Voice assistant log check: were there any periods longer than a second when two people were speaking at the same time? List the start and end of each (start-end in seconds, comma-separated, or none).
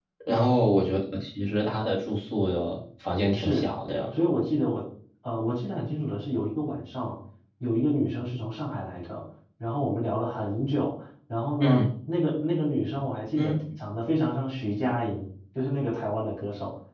none